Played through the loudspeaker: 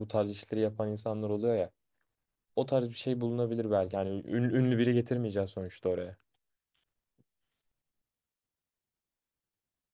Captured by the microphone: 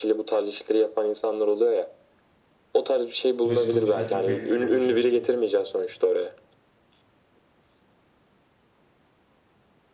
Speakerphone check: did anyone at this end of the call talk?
Yes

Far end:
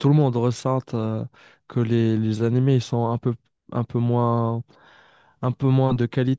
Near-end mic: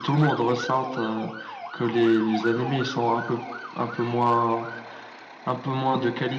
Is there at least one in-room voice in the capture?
No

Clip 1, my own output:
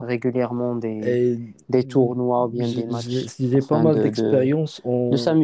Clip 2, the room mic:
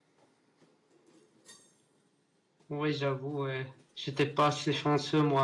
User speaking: Yes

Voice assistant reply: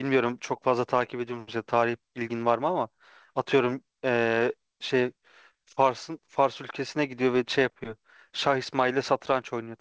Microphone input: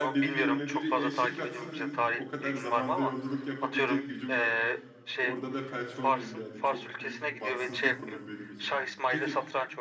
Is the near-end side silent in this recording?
No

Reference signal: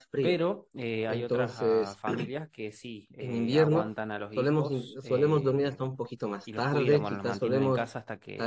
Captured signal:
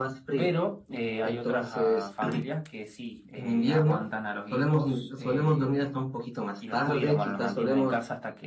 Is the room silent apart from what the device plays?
Yes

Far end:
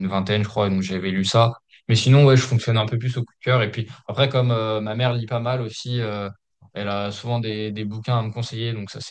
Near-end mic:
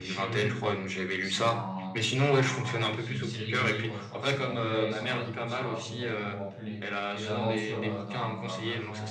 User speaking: Yes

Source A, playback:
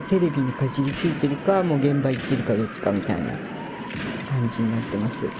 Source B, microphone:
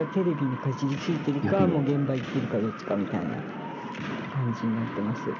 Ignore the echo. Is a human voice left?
Yes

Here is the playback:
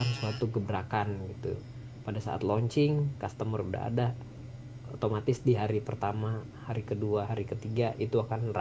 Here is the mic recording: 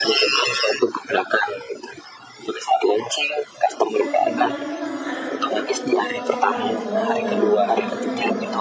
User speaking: Yes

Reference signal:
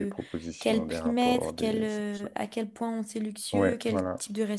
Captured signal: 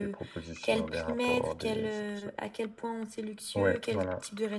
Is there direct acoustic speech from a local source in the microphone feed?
No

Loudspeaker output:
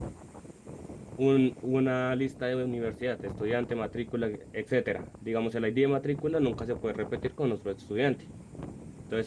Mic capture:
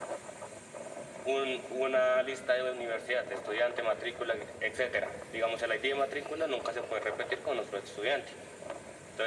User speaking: No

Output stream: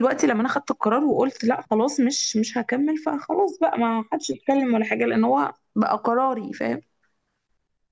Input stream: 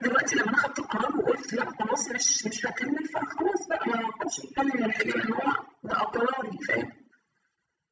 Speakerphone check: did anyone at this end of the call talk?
No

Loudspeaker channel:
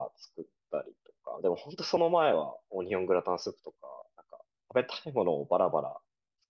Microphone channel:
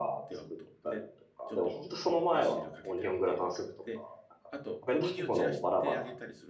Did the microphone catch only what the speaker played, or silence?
No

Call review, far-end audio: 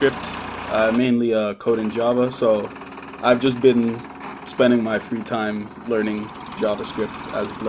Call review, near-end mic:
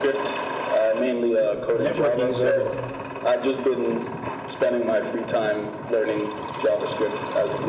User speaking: Yes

